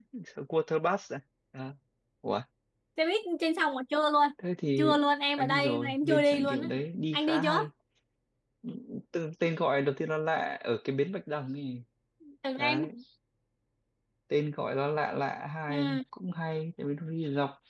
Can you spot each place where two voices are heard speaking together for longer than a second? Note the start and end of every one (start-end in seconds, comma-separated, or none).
5.4-6.7